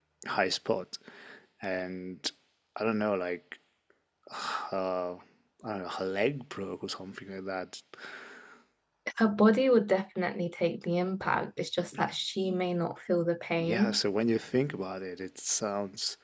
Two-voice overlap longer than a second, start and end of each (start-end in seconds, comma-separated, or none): none